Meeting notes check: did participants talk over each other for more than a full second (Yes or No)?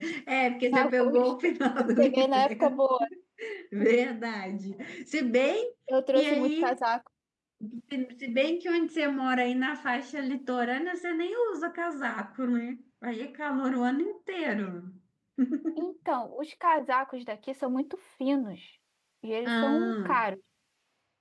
Yes